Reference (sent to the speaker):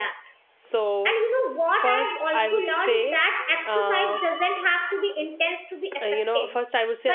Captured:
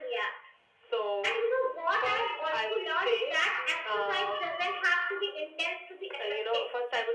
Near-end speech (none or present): none